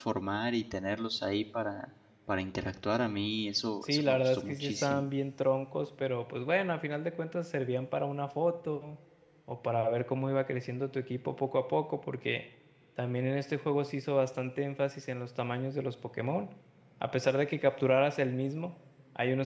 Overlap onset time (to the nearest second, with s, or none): 4 s